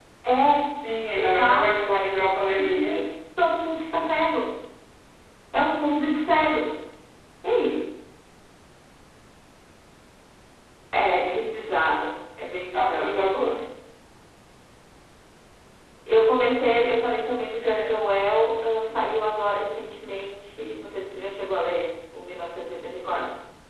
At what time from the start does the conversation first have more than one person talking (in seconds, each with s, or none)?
1.1 s